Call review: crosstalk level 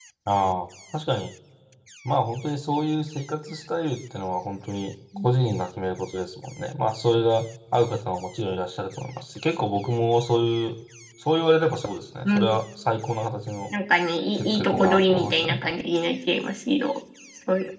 present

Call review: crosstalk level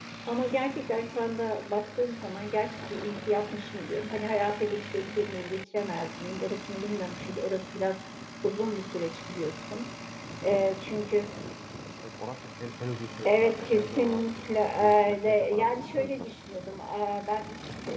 present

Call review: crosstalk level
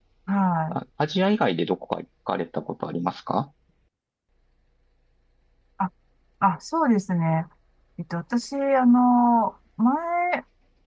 none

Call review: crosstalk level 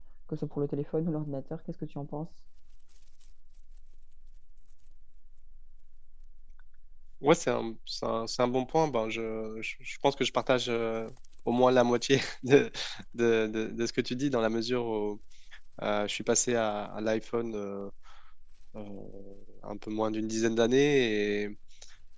none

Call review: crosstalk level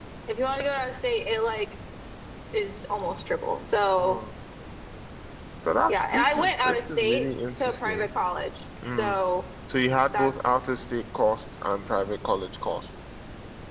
present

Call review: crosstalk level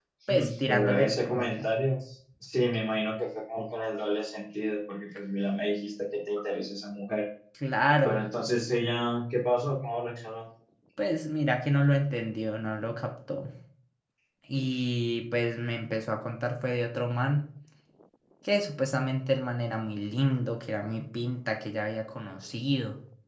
present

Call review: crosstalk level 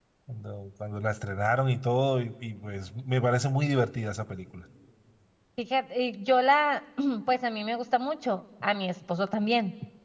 none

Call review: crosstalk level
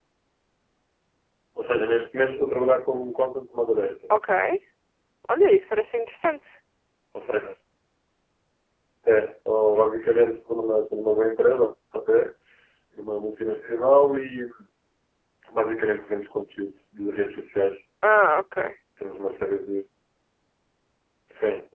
none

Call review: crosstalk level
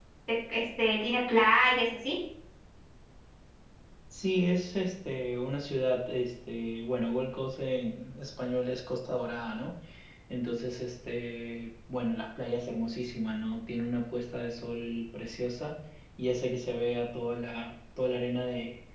none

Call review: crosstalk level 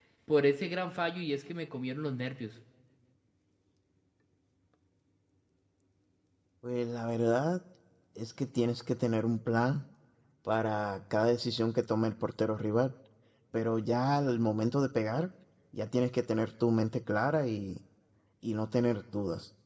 none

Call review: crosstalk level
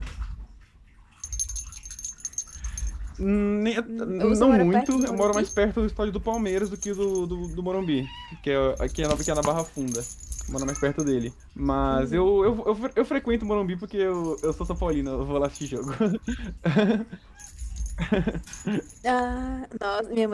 present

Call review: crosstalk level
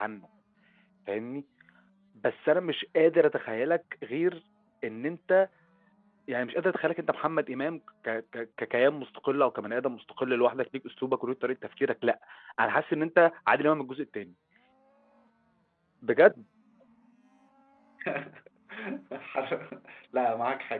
none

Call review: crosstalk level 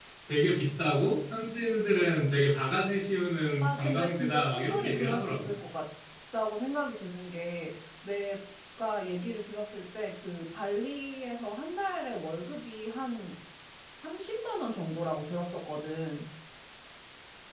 present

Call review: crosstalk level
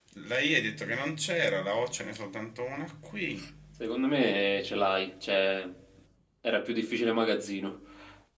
none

